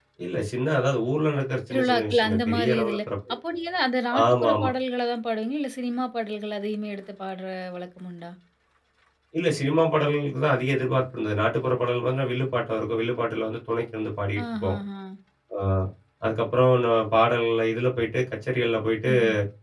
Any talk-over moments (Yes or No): Yes